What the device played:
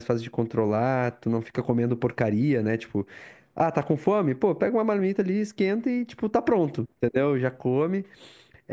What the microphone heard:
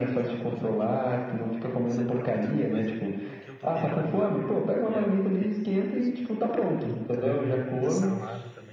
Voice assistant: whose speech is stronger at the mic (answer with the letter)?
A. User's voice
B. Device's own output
B